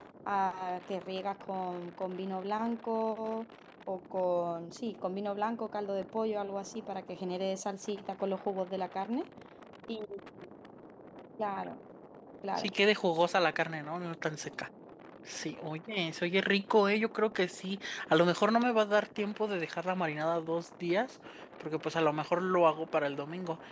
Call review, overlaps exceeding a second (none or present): none